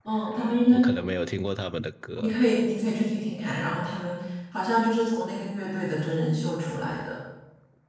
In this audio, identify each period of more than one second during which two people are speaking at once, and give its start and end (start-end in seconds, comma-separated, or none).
none